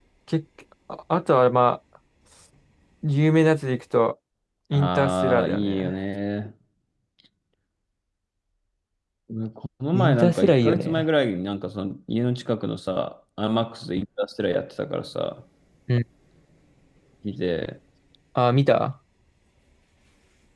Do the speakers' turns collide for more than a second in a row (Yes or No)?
Yes